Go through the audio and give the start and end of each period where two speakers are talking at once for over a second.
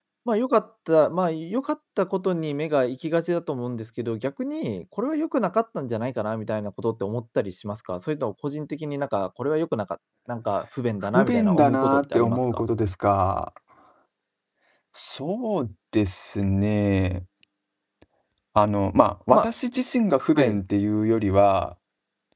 11.1-12.6

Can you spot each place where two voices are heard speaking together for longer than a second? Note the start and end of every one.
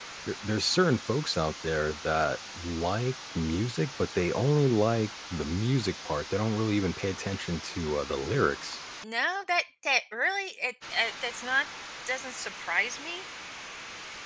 none

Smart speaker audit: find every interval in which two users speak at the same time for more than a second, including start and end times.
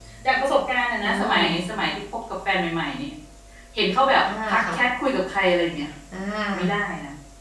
none

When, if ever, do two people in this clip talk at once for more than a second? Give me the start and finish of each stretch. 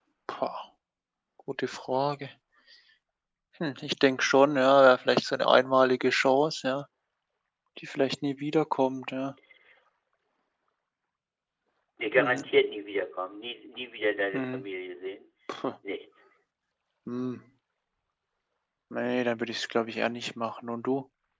none

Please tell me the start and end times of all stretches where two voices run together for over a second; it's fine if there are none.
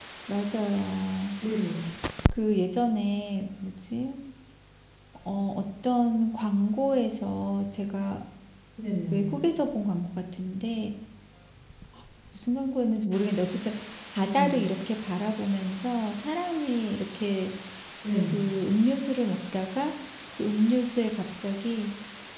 none

